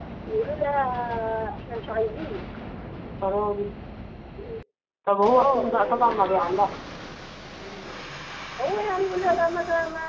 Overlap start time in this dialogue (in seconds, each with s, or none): 5.3 s